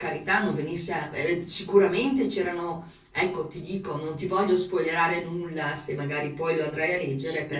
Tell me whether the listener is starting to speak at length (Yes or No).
Yes